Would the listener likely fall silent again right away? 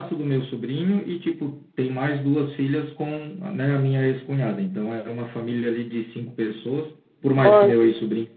Yes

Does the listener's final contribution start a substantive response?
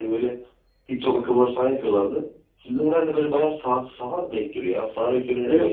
Yes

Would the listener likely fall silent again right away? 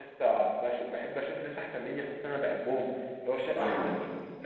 Yes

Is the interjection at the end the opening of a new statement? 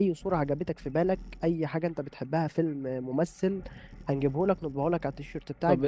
Yes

